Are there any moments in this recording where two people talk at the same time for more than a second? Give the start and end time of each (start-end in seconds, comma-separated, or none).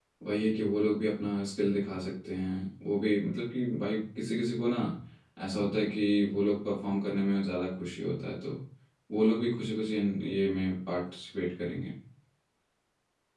none